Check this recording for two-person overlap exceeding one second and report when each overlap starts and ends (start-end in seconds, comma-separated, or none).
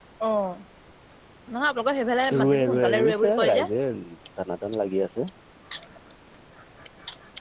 2.3-3.7